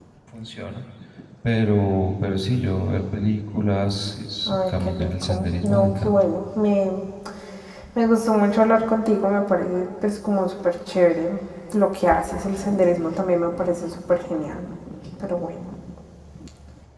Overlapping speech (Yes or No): Yes